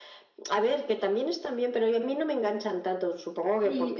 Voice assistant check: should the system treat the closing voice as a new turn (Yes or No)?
Yes